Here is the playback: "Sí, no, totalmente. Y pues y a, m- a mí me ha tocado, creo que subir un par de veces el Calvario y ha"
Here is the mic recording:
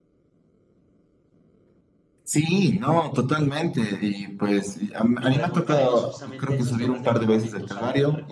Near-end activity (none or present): present